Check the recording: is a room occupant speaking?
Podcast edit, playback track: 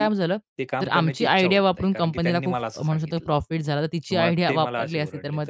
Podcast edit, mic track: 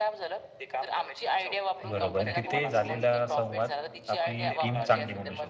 Yes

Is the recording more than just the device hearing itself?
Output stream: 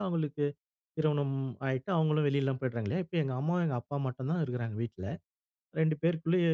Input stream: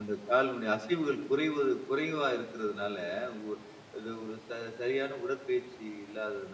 Yes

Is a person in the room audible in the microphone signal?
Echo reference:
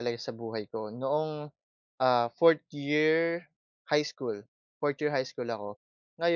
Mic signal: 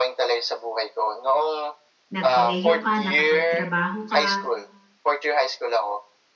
Yes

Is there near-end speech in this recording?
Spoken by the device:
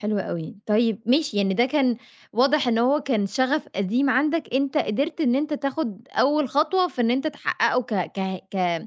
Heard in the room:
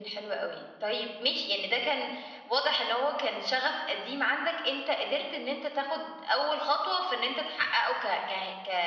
No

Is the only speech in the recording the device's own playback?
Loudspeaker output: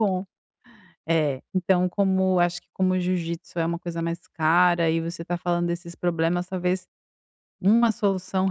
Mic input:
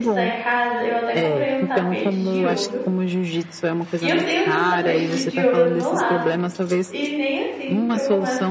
No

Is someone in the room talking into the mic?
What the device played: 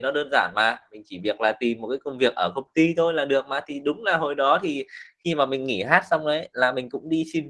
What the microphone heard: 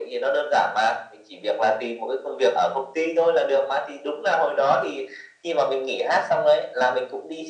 No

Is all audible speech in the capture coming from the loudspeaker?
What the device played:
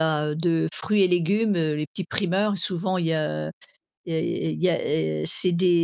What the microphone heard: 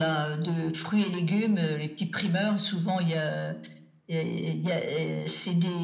Yes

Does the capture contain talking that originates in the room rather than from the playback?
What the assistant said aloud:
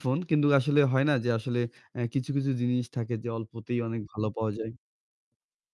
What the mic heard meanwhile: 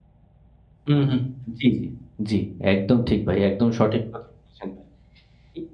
Yes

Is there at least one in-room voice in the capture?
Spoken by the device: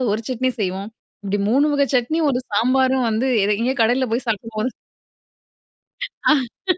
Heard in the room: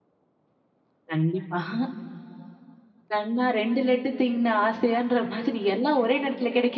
Yes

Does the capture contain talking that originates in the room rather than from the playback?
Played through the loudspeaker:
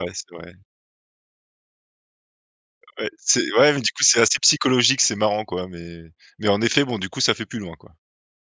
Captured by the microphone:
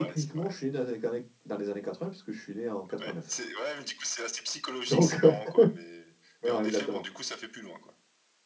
Yes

